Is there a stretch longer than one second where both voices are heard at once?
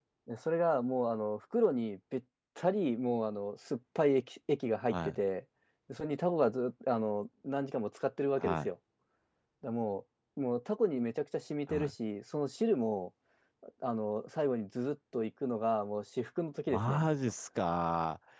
No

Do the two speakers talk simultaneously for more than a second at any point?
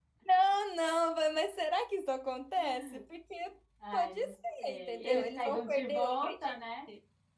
Yes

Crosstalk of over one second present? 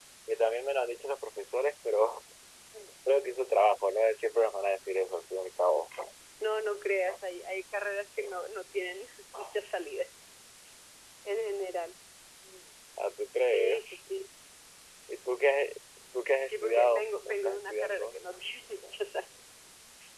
Yes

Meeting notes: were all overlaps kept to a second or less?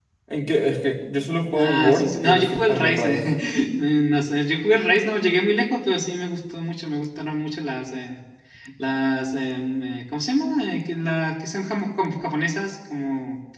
No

